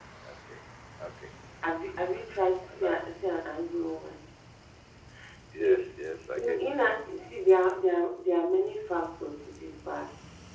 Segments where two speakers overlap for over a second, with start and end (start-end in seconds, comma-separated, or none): none